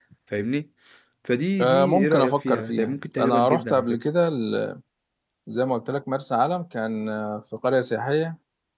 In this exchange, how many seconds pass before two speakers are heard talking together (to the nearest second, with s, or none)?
2 s